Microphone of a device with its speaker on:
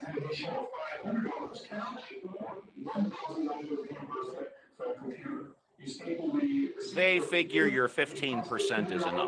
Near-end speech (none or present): present